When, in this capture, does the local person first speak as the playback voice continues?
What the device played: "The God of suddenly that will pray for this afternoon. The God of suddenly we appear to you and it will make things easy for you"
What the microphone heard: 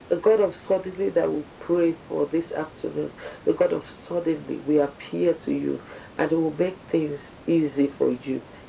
none

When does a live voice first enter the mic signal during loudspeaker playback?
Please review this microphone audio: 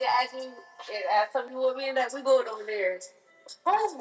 none

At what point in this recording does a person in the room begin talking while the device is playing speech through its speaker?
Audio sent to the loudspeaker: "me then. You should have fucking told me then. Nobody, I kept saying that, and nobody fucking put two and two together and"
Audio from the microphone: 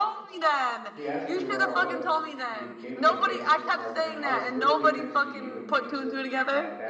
0.9 s

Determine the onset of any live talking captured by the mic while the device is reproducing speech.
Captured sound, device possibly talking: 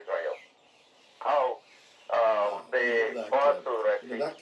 2.4 s

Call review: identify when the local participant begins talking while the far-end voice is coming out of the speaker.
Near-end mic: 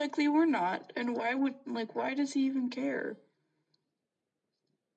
none

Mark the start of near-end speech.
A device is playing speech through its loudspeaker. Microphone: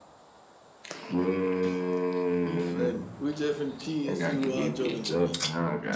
none

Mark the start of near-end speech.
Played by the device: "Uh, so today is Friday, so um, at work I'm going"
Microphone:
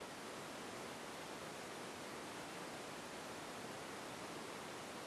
none

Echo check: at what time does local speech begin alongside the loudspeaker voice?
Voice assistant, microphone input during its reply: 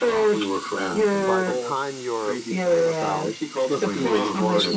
0.7 s

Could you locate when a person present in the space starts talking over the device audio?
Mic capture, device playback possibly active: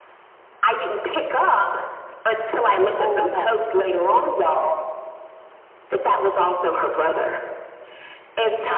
3.0 s

